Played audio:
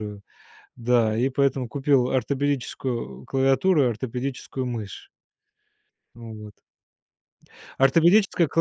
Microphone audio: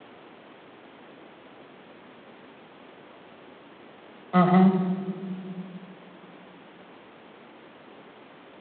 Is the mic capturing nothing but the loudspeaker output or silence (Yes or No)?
No